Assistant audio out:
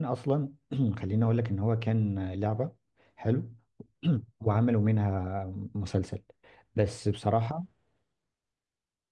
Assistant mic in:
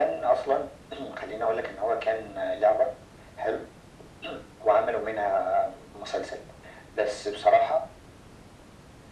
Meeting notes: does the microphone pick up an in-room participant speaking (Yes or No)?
No